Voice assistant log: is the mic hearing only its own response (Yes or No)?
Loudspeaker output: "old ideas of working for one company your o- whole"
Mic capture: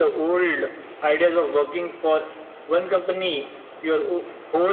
Yes